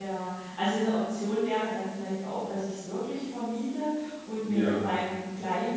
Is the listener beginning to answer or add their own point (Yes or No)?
No